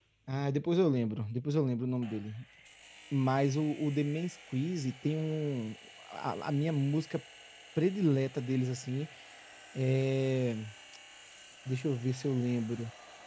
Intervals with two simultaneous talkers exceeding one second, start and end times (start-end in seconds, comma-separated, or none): none